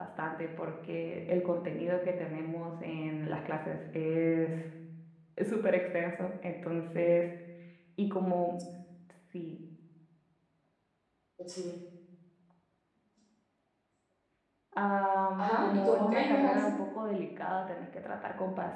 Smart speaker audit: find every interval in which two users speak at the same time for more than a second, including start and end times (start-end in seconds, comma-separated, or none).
15.4-16.7